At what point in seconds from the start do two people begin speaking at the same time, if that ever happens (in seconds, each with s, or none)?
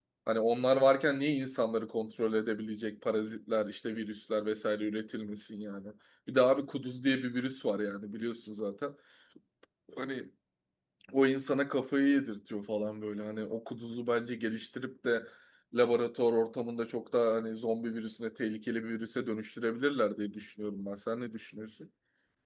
none